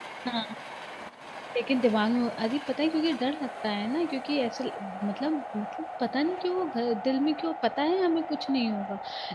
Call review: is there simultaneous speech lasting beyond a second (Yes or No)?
No